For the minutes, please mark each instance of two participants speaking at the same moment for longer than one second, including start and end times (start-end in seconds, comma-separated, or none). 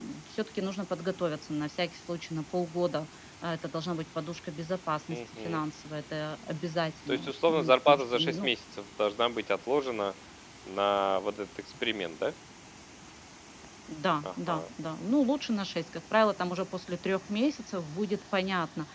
7.1-8.5